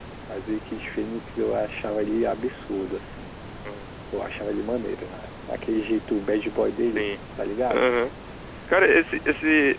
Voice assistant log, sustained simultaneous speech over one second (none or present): none